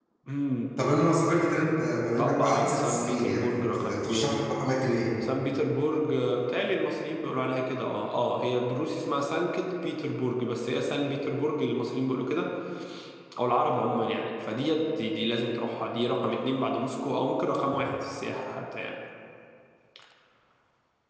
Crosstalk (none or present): present